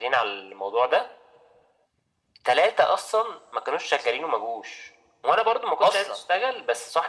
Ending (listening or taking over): listening